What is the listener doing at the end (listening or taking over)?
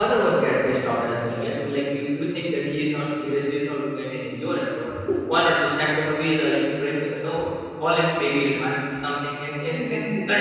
listening